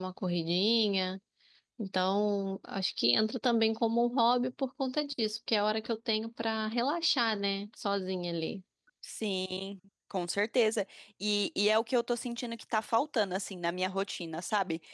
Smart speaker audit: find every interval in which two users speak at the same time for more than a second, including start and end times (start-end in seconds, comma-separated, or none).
none